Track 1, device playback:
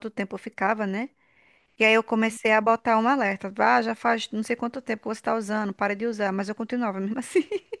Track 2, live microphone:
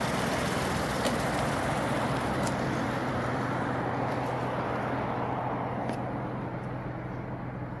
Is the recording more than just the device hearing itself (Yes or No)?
No